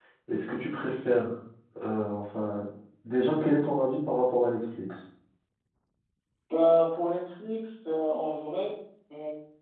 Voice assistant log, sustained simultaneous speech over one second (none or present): none